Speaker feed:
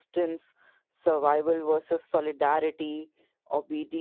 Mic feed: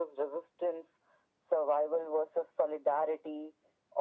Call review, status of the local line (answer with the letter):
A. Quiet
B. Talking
A